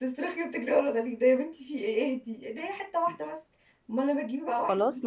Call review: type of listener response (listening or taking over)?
taking over